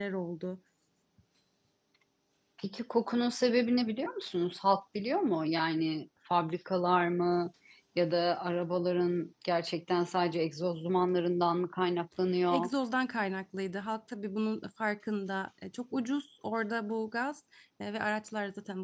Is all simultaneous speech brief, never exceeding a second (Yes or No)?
Yes